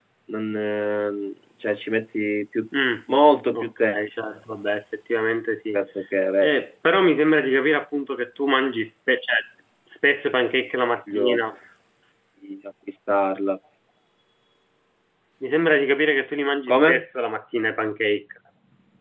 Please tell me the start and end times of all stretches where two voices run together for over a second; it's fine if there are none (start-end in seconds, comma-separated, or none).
none